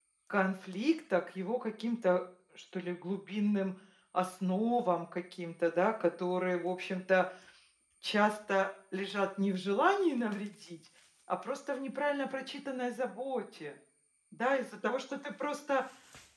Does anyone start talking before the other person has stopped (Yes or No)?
No